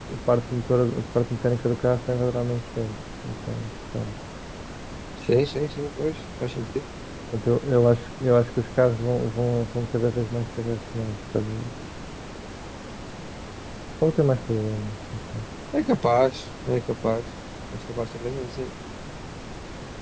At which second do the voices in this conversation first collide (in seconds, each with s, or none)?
none